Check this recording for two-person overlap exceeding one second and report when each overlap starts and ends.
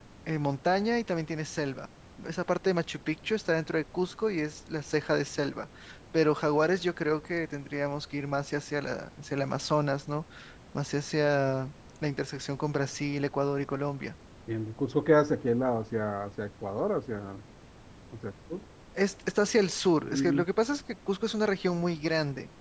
none

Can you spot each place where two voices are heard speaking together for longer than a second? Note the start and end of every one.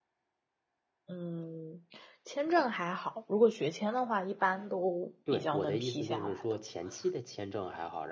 5.3-6.5

